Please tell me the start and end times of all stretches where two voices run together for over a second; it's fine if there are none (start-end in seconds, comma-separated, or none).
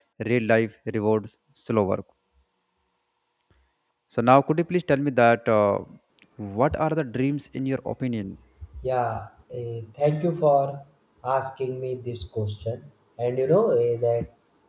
none